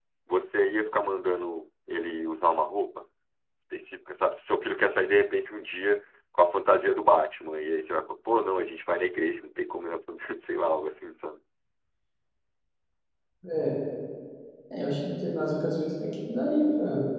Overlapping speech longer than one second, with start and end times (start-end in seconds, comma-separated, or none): none